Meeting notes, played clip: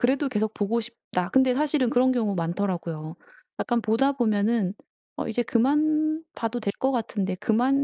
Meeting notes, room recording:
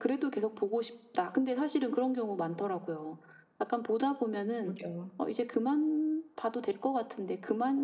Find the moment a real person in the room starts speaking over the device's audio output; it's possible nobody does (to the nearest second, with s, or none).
5 s